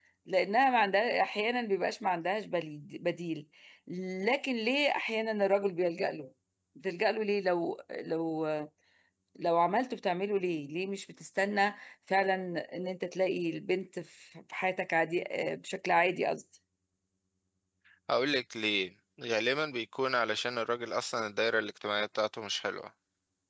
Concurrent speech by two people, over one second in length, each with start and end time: none

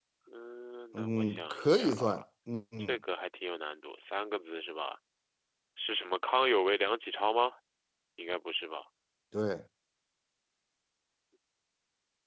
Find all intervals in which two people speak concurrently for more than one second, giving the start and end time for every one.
0.9-2.2

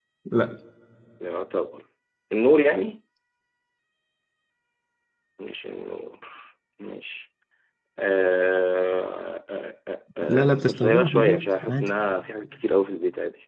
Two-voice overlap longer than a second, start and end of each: 10.3-11.9

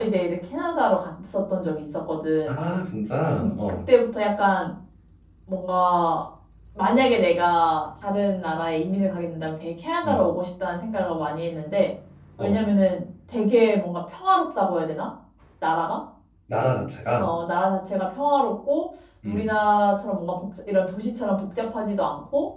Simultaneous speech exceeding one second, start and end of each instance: none

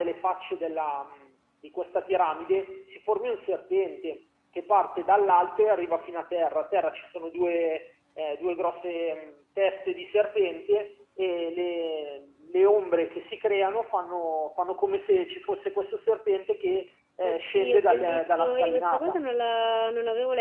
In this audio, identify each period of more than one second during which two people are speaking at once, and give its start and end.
17.2-19.2

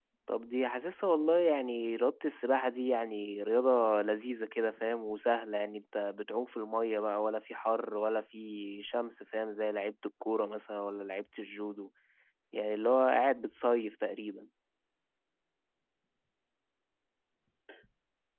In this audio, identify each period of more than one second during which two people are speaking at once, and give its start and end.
none

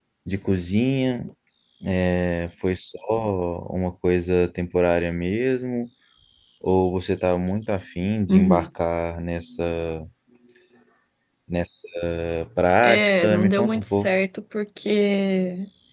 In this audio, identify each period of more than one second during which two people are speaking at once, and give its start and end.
12.8-14.1

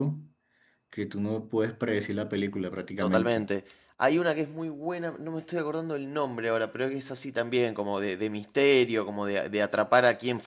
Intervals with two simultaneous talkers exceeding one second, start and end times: none

